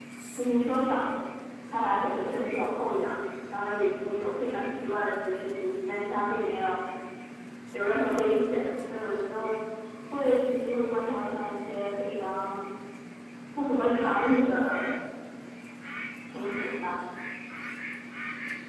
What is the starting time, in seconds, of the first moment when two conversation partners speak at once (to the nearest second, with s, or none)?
none